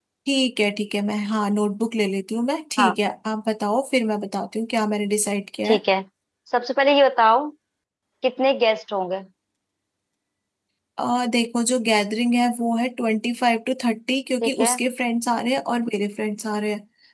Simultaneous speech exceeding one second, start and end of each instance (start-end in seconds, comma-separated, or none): none